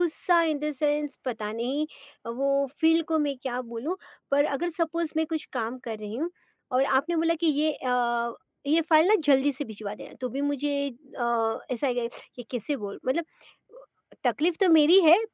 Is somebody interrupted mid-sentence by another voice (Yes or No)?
No